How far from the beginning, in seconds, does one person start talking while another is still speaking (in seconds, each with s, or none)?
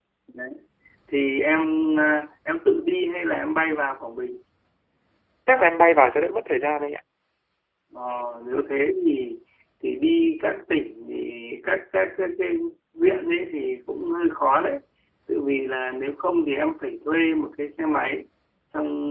none